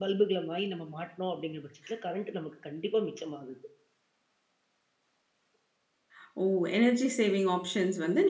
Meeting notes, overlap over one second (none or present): none